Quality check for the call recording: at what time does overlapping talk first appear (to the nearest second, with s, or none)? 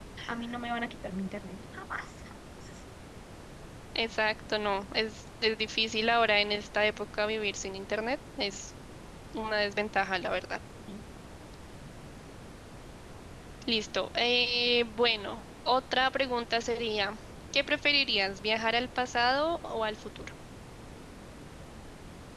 none